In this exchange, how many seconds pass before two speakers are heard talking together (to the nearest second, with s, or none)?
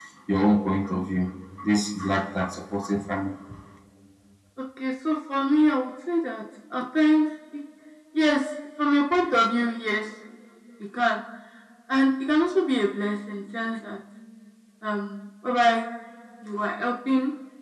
none